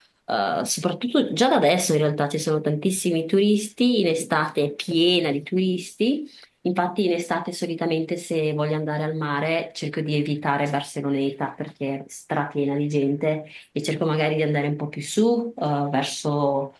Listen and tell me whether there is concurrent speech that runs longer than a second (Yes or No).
No